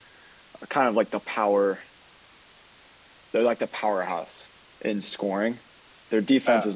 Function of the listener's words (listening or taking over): listening